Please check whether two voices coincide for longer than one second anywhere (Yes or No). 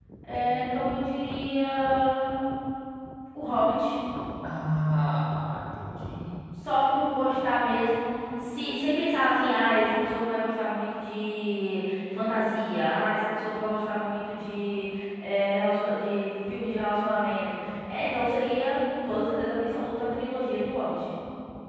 No